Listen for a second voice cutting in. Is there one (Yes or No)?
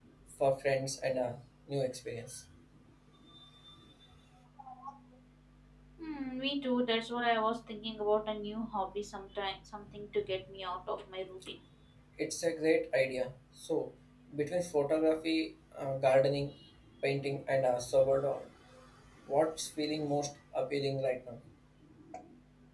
No